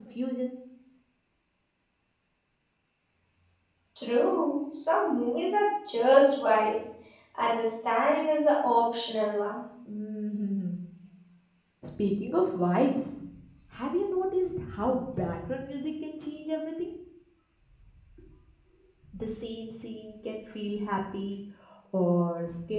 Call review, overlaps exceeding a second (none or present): none